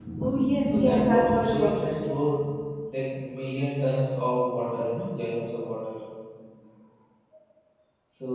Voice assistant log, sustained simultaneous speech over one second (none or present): present